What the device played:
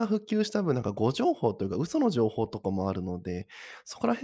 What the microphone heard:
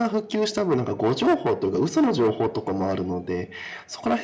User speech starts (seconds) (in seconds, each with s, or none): none